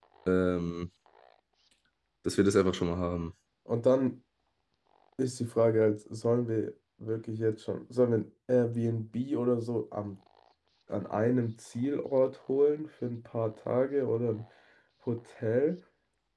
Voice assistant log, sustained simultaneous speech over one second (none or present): none